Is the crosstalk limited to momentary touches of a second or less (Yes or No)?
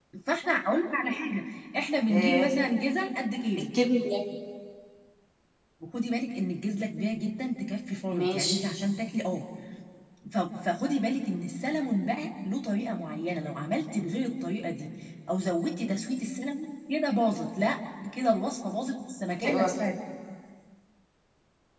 Yes